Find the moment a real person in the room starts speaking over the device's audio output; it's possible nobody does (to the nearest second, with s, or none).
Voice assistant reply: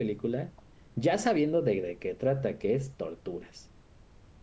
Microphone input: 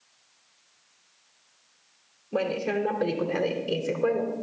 2 s